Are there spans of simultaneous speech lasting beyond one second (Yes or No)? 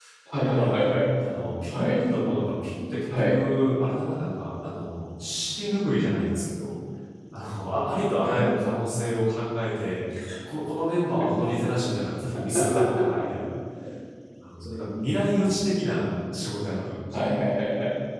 No